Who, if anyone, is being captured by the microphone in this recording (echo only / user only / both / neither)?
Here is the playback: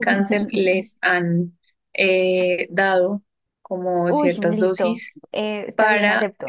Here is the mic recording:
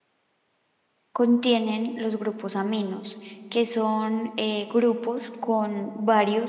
user only